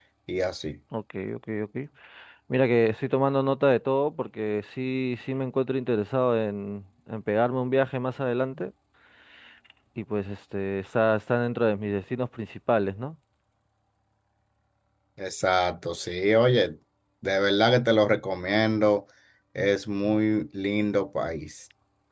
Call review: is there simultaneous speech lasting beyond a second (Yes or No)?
No